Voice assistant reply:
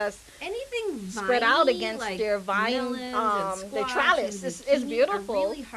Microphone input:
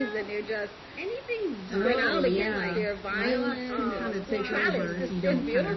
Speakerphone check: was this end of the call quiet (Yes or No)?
No